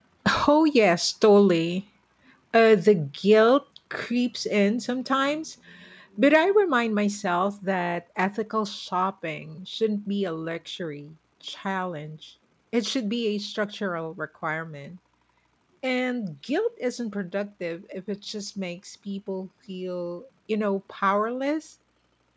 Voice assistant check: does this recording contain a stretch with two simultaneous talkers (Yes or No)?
No